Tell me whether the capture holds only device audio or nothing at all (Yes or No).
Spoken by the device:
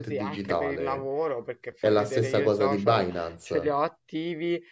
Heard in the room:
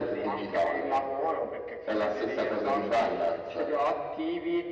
Yes